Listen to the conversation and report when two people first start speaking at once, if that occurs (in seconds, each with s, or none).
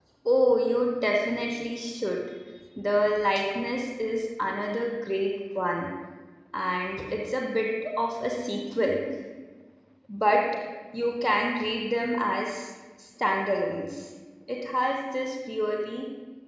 none